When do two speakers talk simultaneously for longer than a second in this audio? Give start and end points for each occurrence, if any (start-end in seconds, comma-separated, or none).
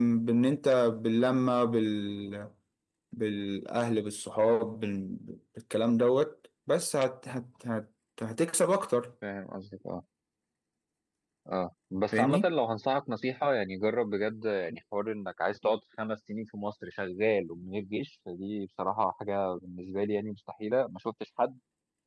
none